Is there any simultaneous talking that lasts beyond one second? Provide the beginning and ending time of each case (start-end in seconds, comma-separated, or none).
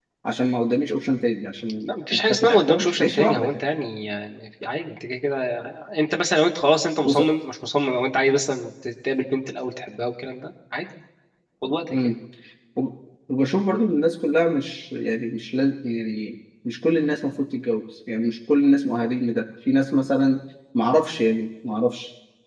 1.8-3.5